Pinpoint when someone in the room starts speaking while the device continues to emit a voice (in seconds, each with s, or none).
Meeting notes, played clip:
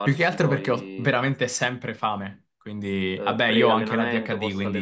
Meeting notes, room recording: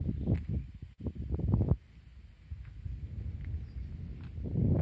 none